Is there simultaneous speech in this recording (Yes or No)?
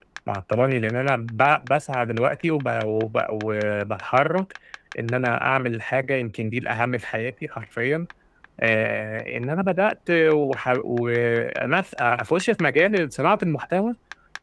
No